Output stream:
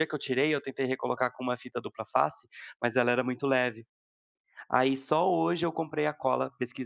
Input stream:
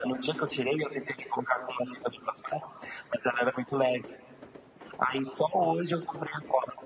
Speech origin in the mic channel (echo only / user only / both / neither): echo only